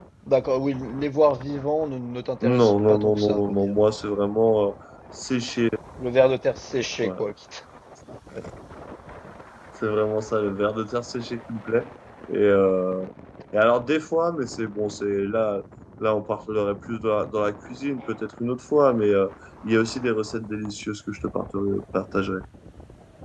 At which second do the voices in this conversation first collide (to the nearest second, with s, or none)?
2 s